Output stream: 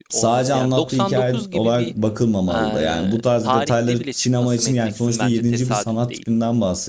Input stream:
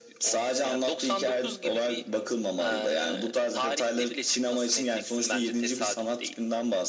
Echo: present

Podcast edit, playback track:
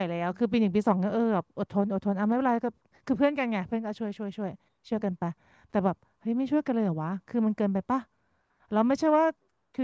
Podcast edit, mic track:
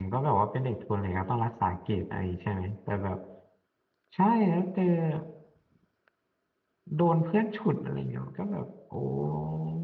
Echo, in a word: none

